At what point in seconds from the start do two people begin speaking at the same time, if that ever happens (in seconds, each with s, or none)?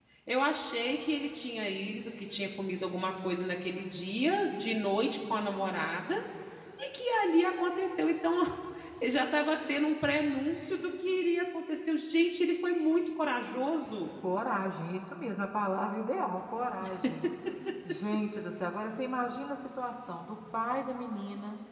none